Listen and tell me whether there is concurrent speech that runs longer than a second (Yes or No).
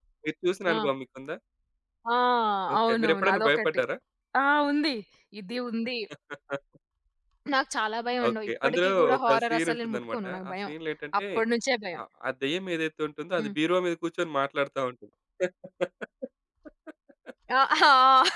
Yes